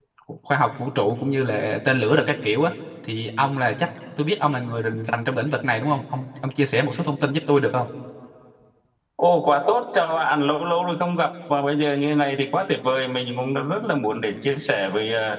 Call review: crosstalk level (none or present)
none